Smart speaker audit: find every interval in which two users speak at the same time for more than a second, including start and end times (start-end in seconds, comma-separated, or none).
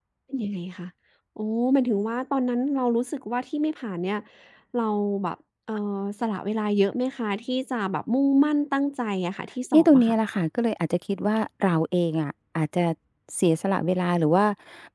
none